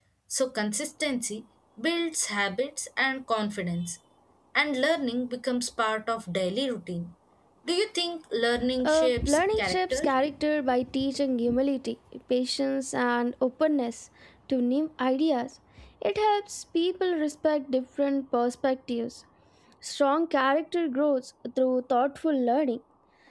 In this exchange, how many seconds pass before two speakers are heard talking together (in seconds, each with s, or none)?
8.8 s